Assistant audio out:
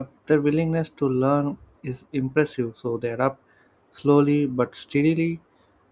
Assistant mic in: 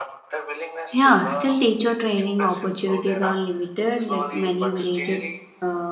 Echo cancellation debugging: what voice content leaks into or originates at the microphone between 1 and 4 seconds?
both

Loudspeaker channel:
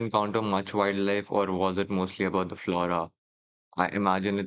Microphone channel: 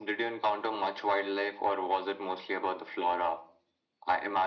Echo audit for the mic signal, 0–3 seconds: echo only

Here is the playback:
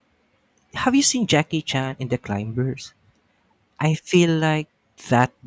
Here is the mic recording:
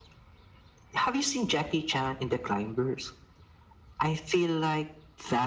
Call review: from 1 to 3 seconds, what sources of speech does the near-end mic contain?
echo only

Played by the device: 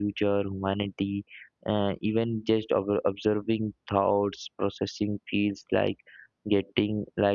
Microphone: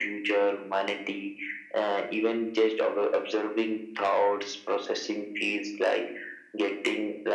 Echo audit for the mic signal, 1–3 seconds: echo only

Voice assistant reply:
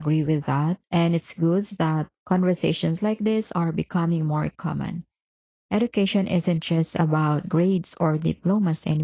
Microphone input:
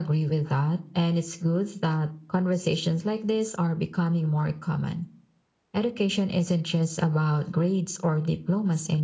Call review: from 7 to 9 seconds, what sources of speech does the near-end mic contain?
echo only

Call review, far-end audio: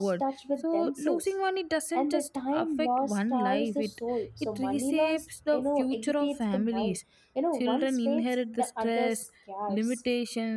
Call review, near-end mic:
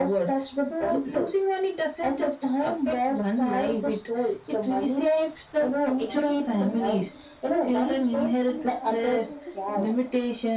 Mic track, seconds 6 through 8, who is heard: both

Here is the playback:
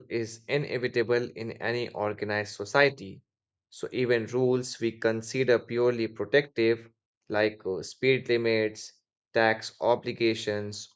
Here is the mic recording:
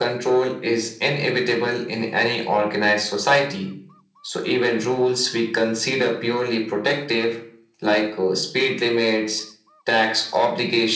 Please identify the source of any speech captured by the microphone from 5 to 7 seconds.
echo only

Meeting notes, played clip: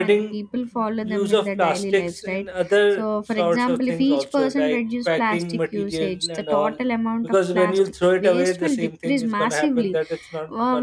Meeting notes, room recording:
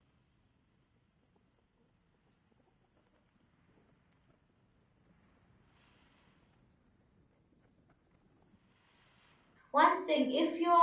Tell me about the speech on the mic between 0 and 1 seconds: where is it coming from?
neither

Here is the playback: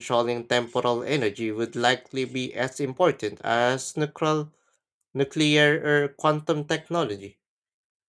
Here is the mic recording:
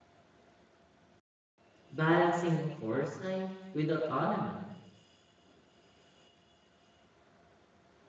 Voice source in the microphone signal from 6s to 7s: neither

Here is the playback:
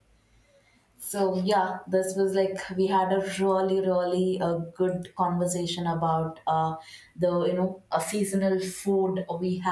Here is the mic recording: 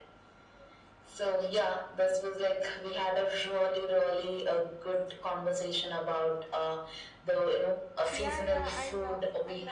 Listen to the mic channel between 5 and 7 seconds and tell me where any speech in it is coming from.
echo only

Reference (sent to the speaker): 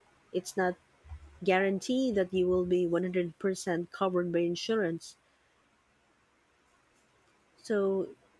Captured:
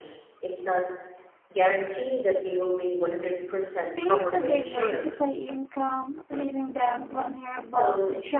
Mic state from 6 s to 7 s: user only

